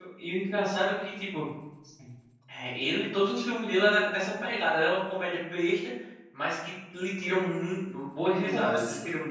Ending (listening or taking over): taking over